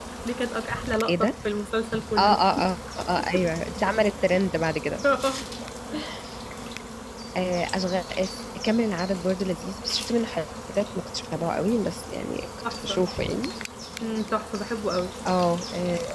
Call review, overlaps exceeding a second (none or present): none